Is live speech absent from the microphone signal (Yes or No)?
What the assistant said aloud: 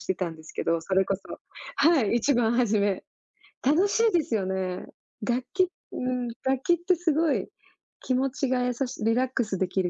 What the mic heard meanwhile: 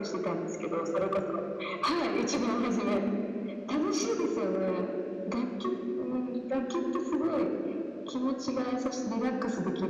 Yes